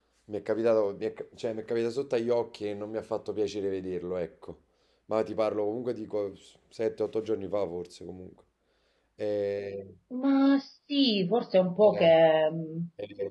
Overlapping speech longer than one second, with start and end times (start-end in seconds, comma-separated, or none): none